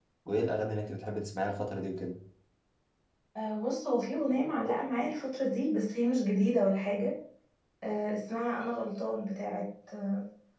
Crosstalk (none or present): none